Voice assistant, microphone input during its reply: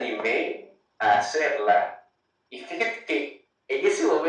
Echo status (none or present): present